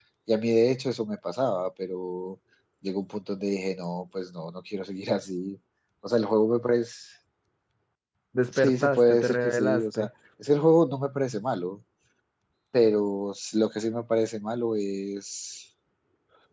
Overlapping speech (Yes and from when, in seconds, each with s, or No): Yes, from 8.5 s